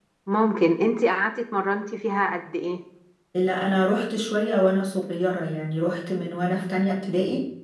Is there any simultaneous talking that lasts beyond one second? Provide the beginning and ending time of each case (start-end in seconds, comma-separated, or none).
none